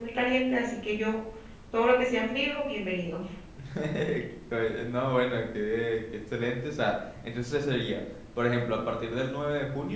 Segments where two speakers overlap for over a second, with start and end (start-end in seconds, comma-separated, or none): none